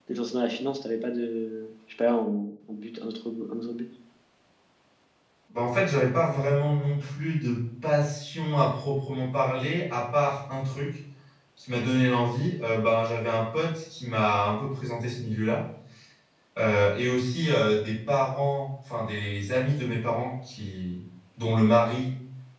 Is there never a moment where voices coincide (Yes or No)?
Yes